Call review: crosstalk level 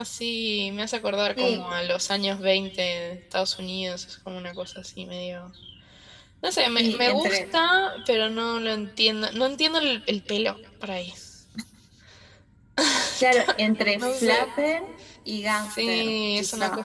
present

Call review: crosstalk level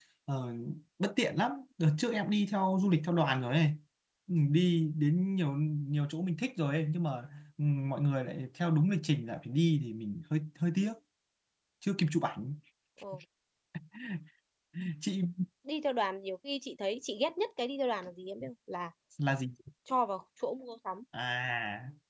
none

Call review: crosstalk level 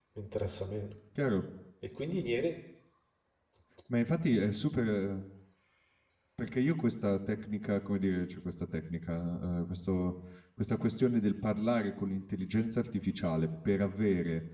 none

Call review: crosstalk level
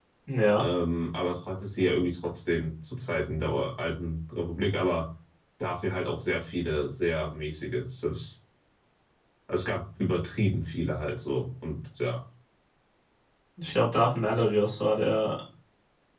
none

